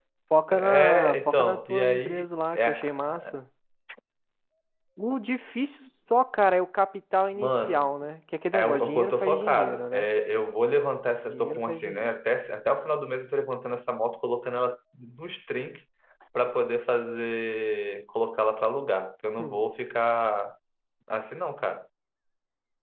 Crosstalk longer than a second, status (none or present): present